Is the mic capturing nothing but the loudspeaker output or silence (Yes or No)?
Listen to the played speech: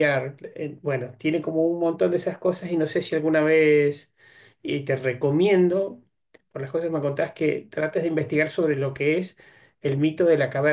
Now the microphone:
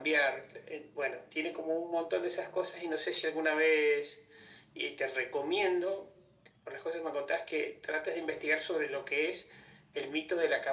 Yes